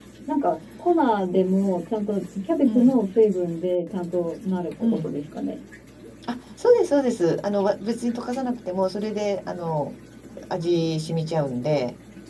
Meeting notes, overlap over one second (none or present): none